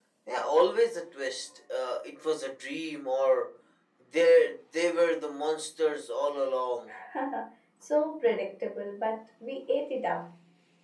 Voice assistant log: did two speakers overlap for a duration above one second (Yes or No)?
No